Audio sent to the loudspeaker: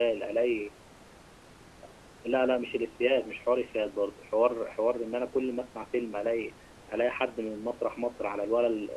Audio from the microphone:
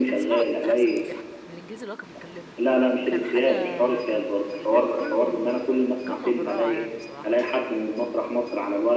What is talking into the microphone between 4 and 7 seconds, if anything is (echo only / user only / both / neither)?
both